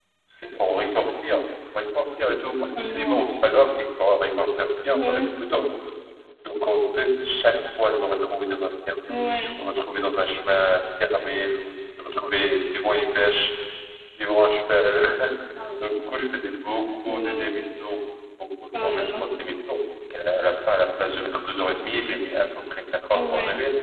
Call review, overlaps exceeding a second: none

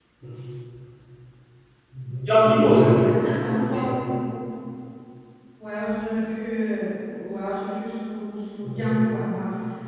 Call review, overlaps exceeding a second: present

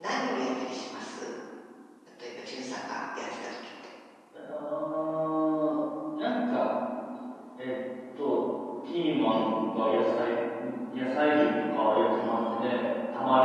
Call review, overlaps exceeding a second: none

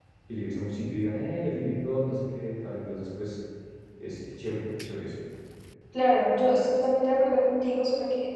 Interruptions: none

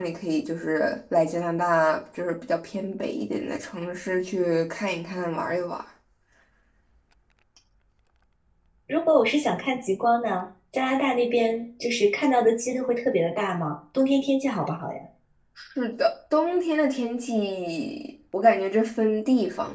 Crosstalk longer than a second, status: none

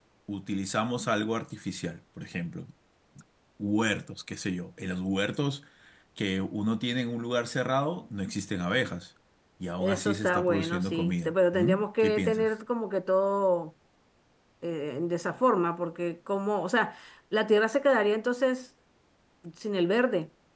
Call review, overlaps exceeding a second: present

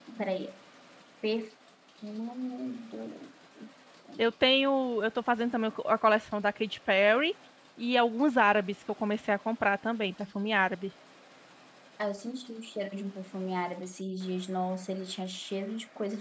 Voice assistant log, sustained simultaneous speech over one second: none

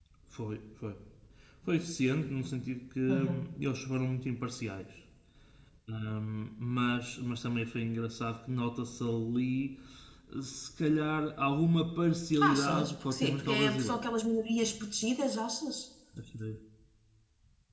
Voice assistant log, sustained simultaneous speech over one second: present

